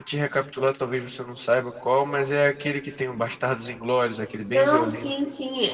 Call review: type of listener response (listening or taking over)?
taking over